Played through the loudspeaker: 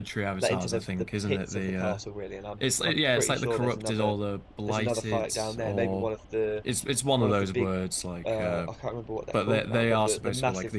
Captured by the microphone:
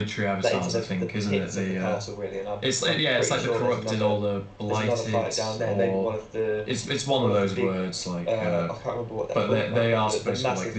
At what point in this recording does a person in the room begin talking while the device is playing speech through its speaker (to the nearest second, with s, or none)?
none